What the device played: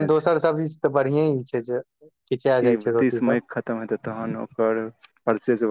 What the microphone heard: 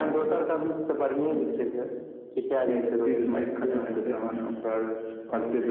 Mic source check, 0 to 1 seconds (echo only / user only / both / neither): echo only